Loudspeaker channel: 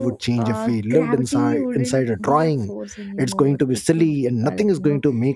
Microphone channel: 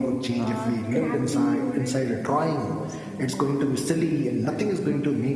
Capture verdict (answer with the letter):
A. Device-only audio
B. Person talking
A